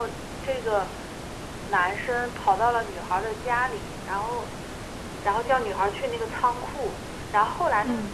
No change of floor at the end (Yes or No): Yes